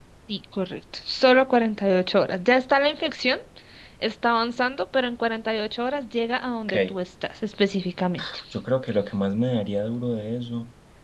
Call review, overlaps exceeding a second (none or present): none